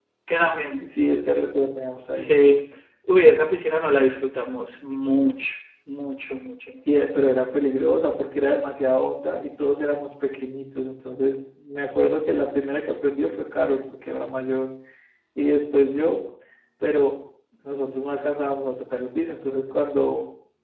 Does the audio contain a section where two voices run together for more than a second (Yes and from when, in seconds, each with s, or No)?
No